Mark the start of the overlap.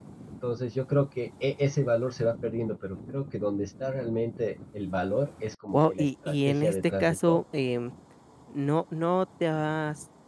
5.7 s

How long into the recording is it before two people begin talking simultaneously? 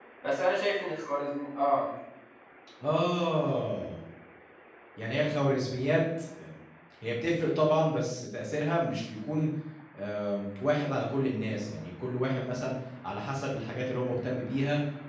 none

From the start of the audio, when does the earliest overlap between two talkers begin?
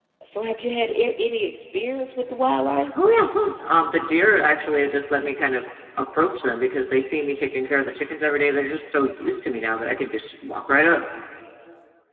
none

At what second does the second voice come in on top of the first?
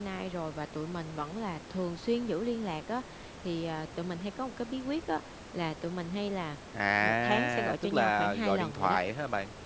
7.0 s

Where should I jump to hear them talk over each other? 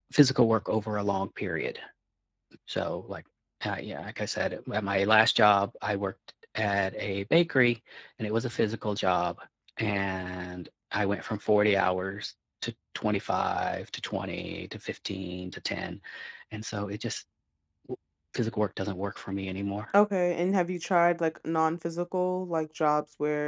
none

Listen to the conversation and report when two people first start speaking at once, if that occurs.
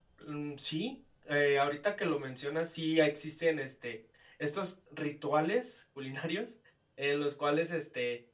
none

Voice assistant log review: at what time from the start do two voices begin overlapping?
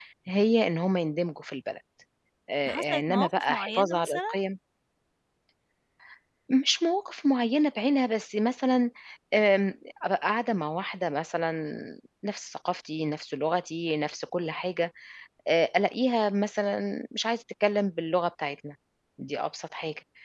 2.7 s

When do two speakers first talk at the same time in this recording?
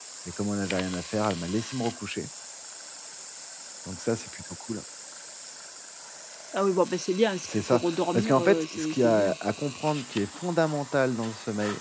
7.4 s

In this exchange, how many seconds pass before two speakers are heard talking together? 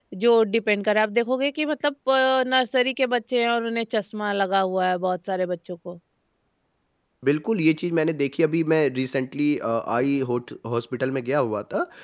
none

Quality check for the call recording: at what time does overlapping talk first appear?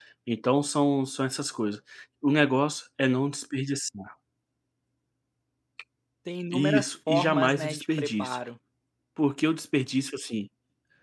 6.5 s

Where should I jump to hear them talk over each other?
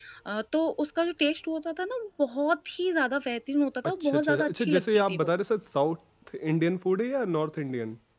3.8 s

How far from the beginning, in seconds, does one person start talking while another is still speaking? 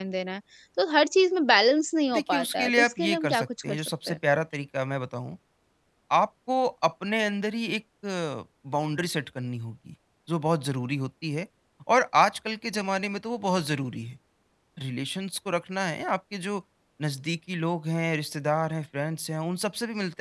2.1 s

